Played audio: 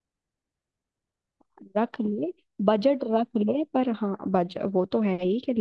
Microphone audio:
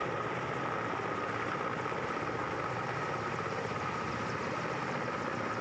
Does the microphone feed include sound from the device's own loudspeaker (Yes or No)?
No